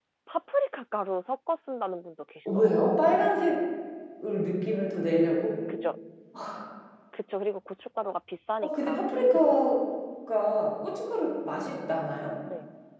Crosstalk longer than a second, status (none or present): none